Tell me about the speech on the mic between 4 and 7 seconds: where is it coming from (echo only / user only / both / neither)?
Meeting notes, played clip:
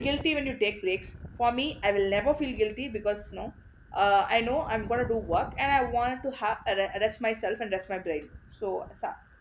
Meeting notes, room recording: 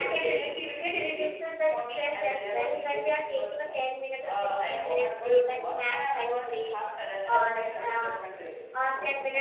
both